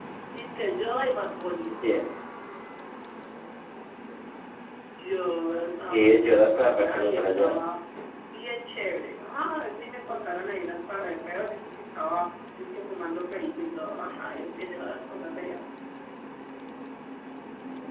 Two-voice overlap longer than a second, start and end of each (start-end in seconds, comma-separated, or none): 5.9-7.6